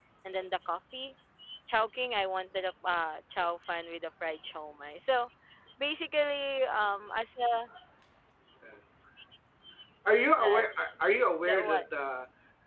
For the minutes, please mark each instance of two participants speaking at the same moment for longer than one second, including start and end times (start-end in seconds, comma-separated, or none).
none